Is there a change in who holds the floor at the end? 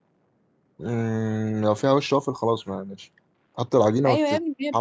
Yes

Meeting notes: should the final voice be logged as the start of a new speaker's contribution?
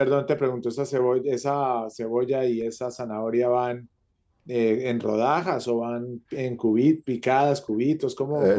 Yes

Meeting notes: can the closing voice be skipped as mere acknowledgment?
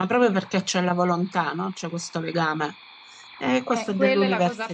No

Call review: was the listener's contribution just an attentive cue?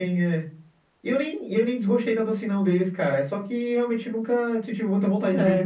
No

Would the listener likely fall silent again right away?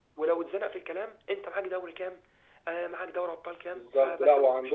No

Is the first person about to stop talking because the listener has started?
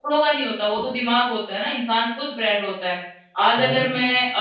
No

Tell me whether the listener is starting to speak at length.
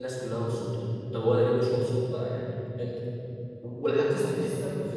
No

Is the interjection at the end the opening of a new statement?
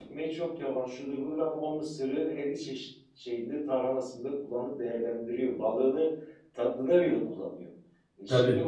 No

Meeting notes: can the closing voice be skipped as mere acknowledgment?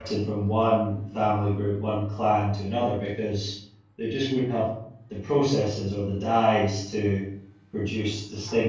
Yes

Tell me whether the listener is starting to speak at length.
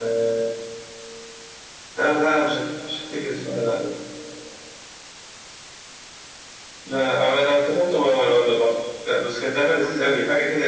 No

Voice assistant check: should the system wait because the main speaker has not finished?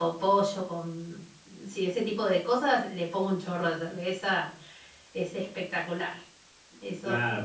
No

